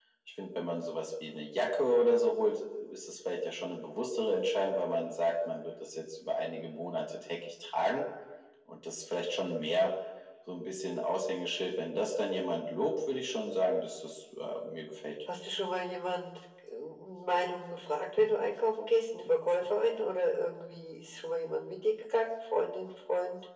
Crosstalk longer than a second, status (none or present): none